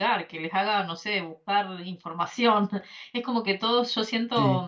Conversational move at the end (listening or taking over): listening